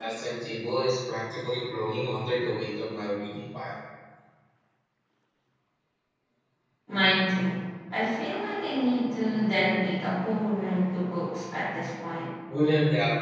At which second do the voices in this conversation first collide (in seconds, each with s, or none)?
none